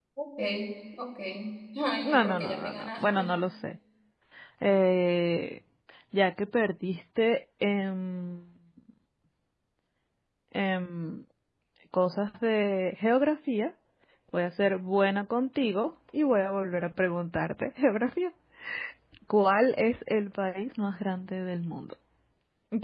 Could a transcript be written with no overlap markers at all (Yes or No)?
No